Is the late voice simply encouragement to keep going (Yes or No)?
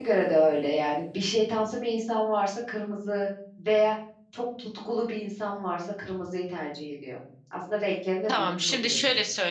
No